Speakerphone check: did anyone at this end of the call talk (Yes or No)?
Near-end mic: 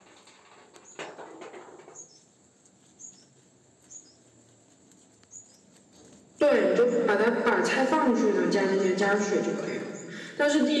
Yes